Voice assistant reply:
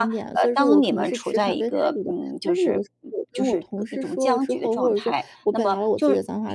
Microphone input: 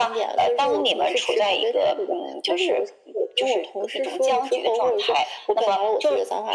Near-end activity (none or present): none